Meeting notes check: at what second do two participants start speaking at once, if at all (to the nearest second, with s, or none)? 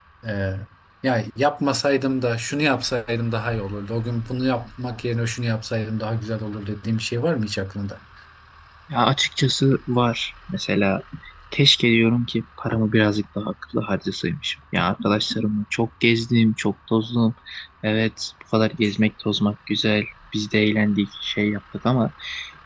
none